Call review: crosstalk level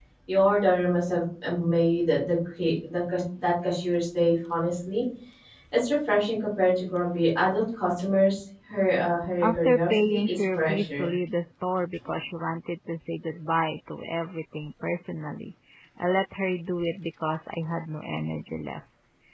present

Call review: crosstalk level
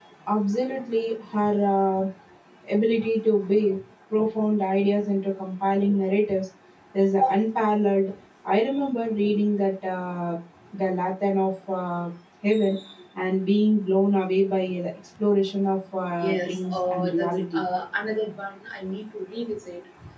present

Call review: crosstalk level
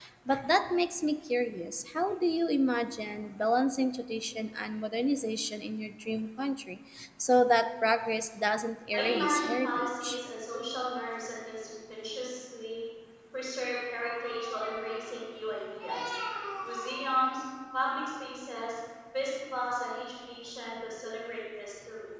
present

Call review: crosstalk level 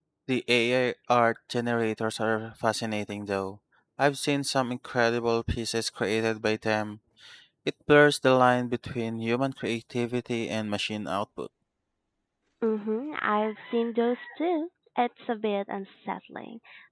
none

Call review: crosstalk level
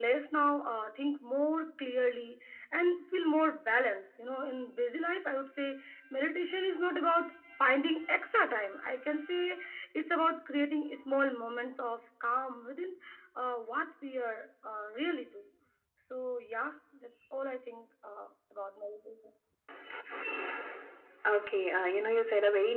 none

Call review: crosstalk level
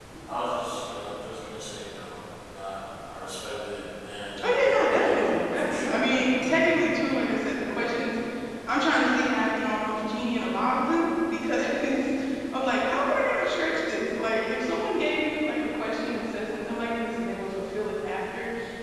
present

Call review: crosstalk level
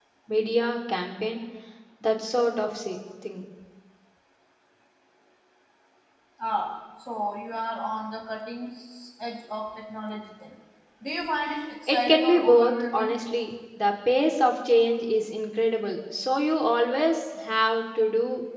present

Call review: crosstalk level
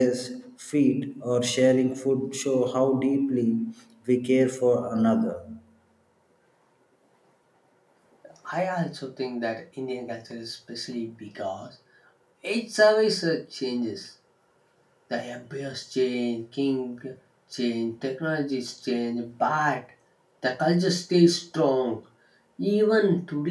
none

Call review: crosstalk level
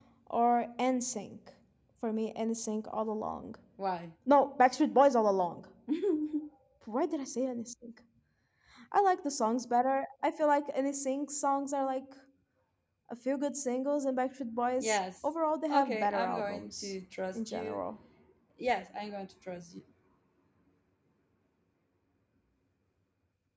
present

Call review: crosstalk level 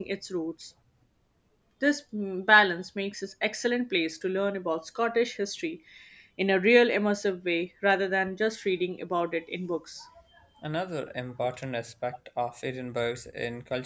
none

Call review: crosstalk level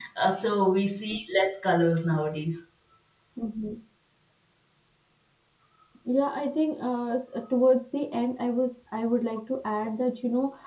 none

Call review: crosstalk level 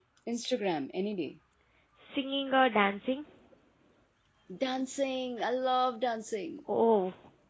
none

